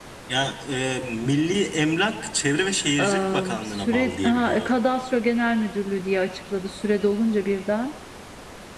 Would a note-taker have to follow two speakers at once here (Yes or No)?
Yes